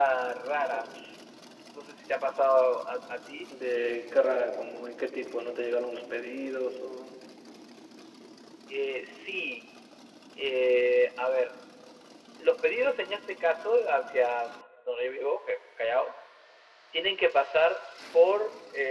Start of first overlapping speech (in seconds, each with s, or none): none